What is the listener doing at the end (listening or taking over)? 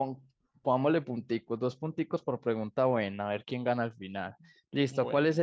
listening